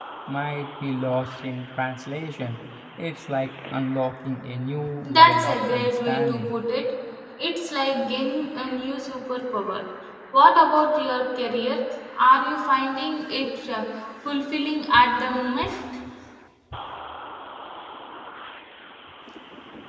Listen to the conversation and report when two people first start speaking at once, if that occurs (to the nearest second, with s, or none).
5 s